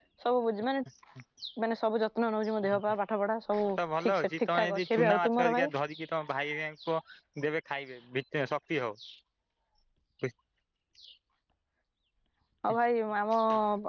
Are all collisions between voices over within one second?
No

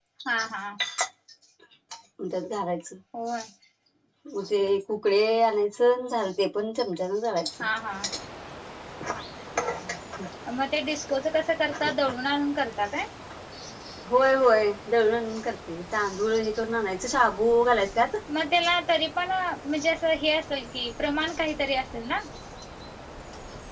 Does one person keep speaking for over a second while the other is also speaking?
No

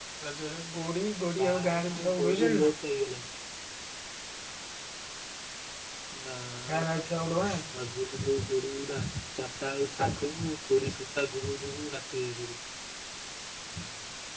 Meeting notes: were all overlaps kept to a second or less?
No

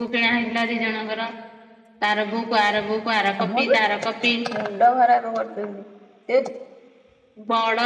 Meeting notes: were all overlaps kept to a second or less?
Yes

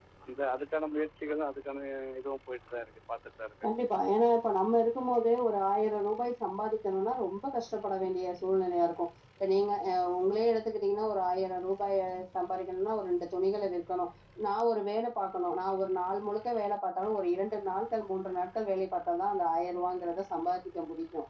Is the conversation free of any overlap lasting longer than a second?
Yes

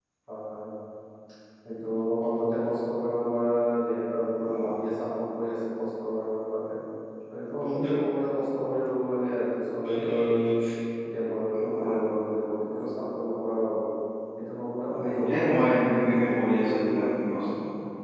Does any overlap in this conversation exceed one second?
Yes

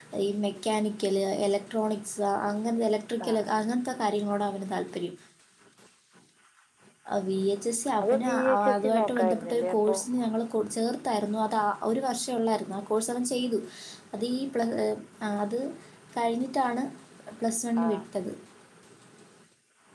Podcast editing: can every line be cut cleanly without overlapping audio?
No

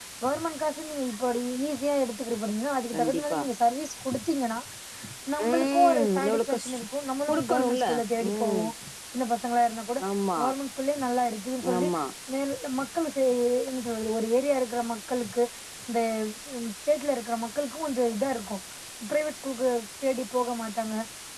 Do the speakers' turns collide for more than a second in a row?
Yes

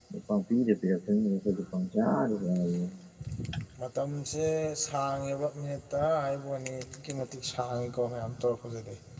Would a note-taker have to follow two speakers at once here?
No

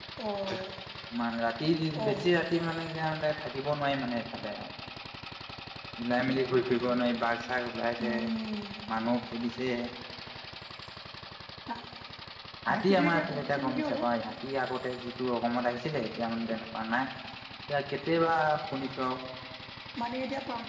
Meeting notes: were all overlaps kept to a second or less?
No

